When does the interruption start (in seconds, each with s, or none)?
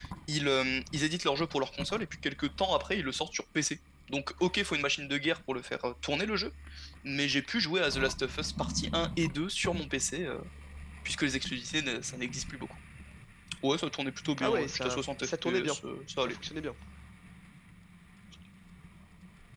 14.4 s